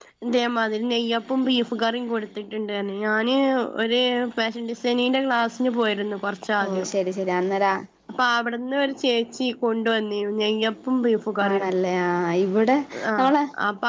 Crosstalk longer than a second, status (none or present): none